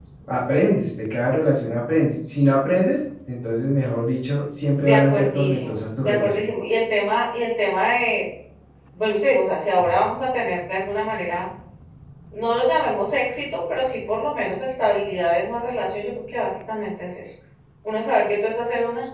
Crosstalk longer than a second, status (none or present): present